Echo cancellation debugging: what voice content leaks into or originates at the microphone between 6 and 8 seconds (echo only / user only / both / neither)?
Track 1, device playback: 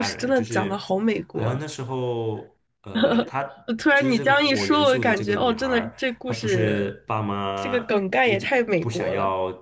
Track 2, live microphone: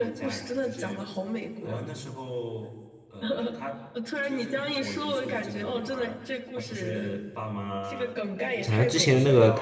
echo only